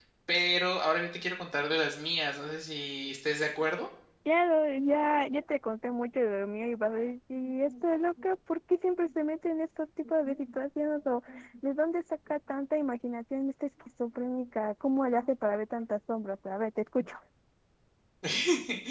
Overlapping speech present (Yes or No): No